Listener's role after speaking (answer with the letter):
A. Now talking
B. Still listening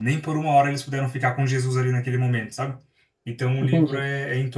B